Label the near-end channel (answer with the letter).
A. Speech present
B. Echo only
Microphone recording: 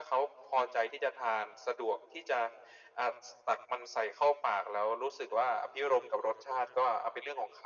B